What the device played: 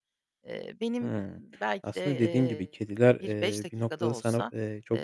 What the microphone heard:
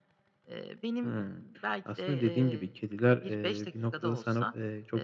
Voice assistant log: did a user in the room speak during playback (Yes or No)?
No